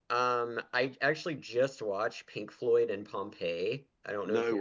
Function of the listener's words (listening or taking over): listening